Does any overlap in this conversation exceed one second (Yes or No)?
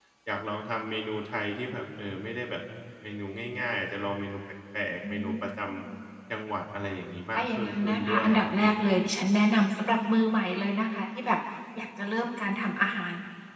Yes